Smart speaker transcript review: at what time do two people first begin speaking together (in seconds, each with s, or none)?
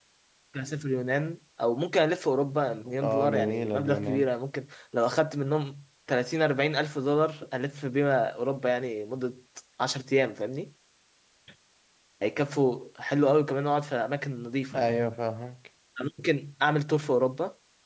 3.0 s